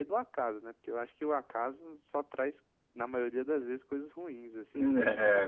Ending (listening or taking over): taking over